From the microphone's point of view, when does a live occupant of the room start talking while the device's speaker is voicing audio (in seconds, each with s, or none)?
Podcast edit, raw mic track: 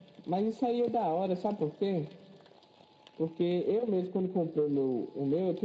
none